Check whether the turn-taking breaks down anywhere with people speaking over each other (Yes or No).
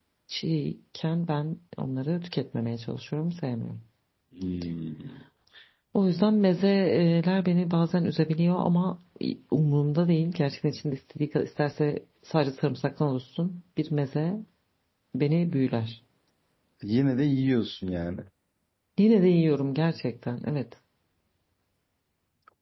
No